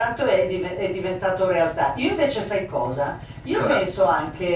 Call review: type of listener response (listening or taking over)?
listening